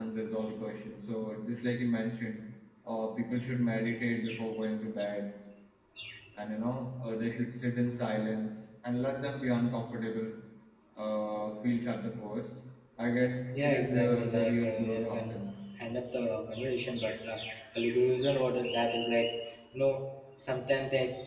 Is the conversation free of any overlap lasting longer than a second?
No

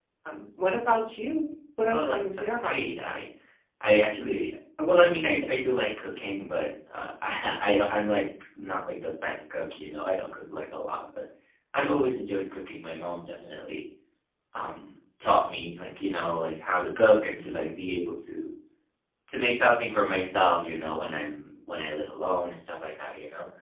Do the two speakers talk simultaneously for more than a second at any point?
Yes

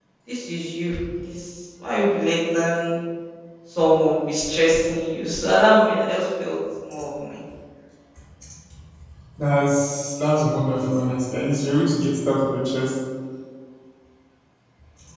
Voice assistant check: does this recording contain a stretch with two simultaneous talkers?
No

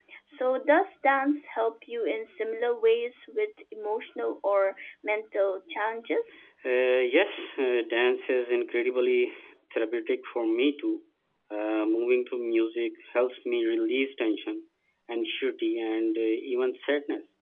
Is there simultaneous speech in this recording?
No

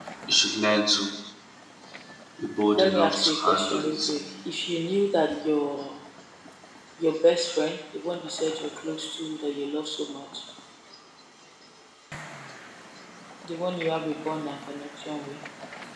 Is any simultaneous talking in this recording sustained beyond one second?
Yes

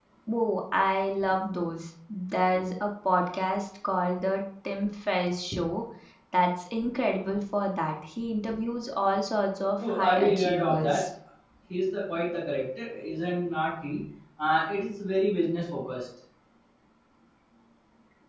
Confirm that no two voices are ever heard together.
No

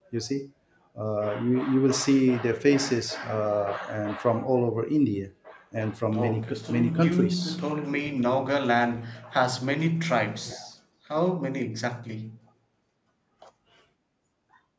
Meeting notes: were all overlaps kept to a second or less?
No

